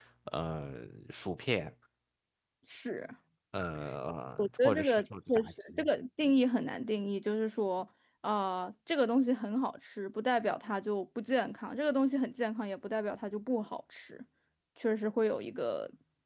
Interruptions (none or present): present